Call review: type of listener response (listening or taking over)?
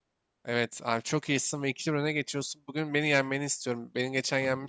listening